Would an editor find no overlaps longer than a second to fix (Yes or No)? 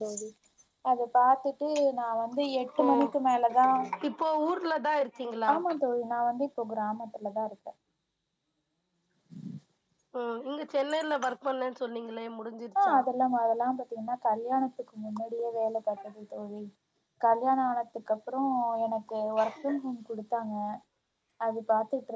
Yes